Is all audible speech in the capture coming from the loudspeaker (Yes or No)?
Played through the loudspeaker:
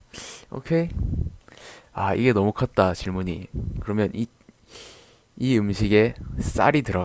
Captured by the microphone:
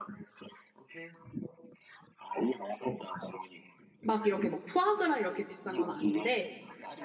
No